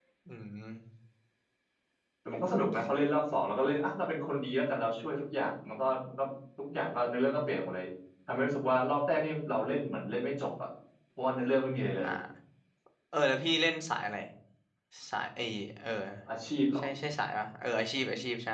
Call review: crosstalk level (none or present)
none